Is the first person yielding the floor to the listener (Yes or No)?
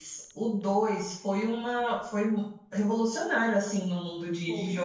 Yes